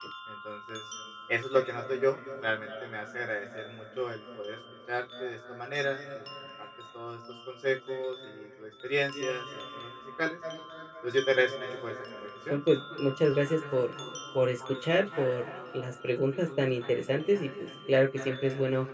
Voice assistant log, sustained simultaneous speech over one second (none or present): none